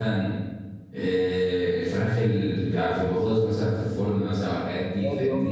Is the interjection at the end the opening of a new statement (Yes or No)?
Yes